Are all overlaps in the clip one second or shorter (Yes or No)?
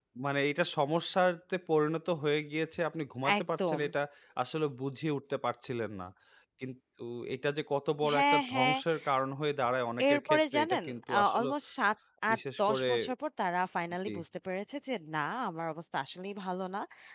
No